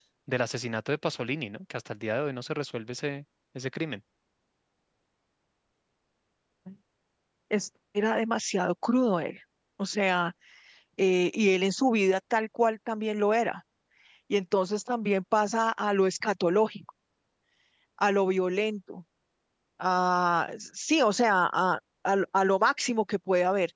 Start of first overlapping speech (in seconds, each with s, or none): none